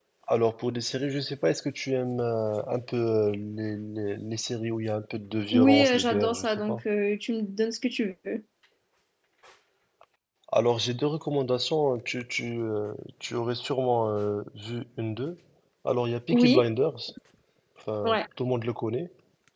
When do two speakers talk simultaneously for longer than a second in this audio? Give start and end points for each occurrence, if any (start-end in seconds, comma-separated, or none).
5.5-6.8